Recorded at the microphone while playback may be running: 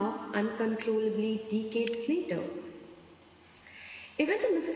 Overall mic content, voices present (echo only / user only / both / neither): echo only